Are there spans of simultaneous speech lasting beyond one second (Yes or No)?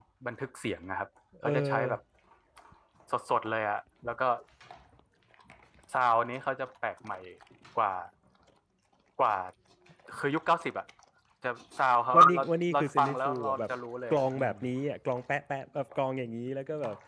Yes